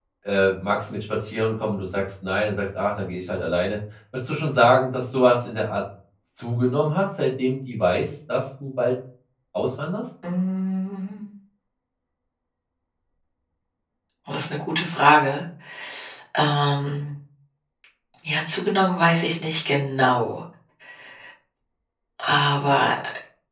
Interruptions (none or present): none